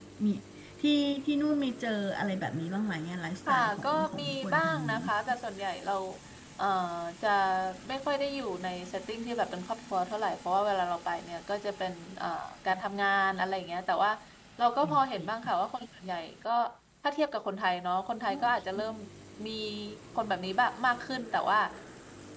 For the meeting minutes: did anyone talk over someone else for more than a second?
Yes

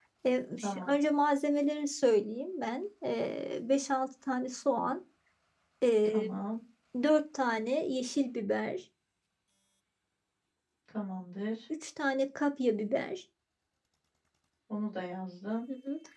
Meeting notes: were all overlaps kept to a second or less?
Yes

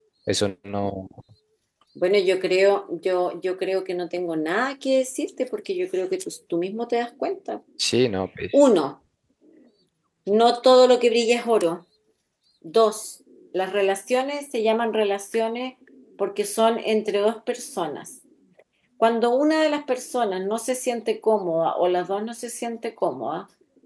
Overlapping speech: No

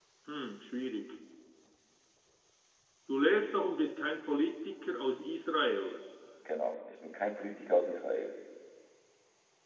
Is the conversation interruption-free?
Yes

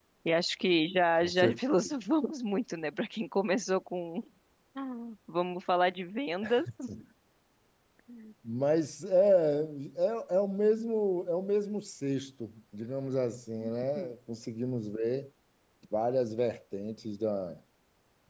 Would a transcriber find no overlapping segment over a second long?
Yes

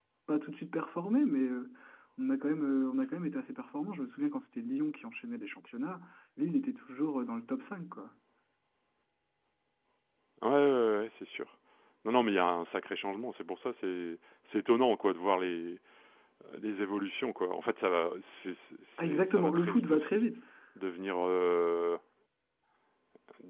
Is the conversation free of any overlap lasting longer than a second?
No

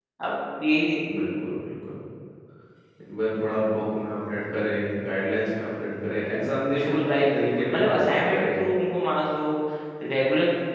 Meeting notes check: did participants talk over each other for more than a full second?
Yes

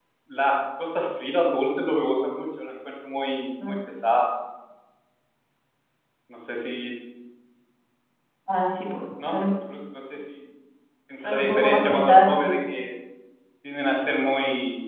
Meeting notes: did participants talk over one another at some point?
Yes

